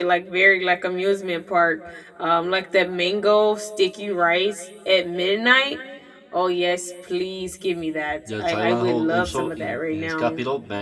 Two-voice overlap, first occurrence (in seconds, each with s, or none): 8.2 s